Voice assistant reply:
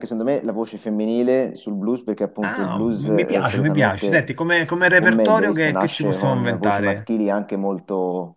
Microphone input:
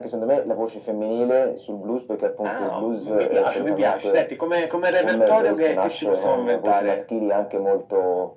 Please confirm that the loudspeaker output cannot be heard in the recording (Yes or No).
No